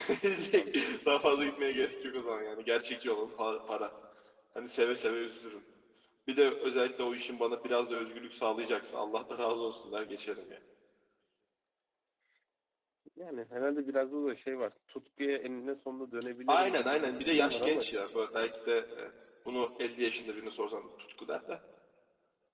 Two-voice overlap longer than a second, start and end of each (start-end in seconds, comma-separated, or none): 16.5-17.8